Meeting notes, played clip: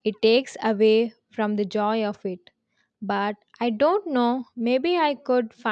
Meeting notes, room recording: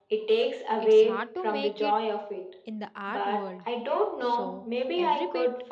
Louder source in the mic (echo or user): echo